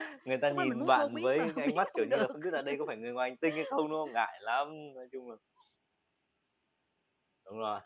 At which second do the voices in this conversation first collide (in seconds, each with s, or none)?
0.5 s